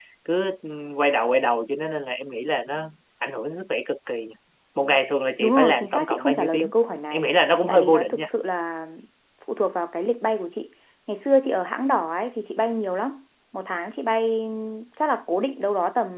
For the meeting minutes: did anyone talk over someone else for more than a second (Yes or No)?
Yes